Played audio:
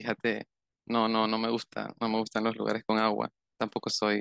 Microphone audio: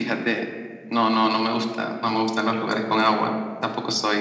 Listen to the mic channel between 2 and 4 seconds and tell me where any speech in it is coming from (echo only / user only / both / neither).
echo only